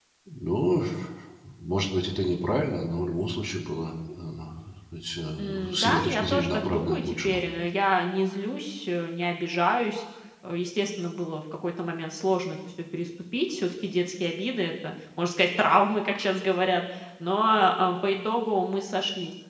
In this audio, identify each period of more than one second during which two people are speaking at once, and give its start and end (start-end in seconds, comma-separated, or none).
5.4-7.4